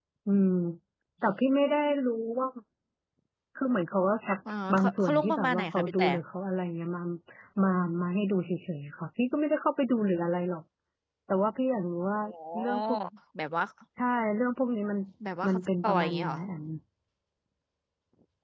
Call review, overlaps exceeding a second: present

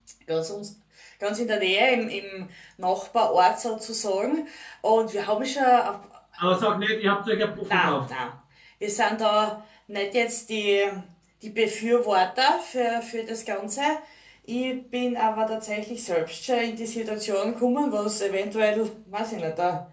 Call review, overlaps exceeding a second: none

